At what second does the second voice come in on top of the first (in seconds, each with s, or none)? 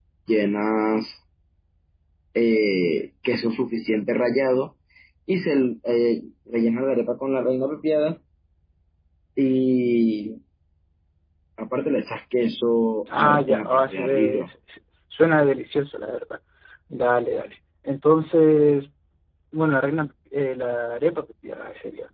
13.1 s